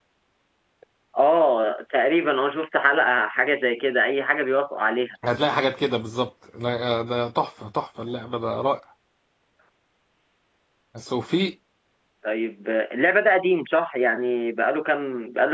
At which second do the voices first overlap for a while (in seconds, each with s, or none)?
none